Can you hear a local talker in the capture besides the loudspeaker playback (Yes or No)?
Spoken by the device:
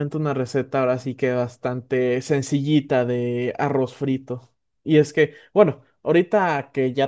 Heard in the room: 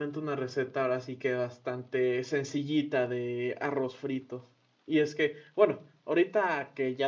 No